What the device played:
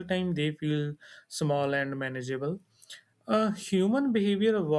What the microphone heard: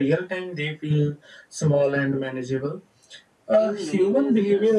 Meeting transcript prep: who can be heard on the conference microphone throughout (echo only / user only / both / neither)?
both